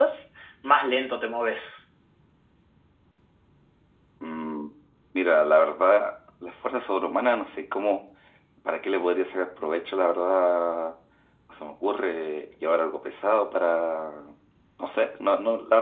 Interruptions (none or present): none